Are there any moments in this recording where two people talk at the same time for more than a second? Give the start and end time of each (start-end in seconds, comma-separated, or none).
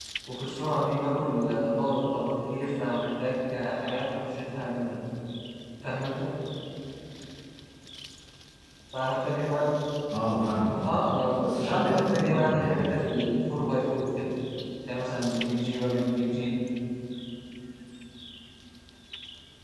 11.5-12.8